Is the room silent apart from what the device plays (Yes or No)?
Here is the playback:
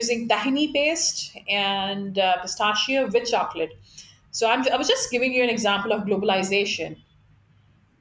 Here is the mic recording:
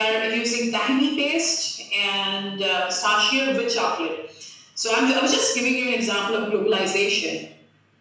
Yes